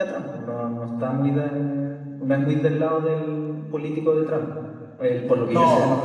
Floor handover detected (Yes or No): Yes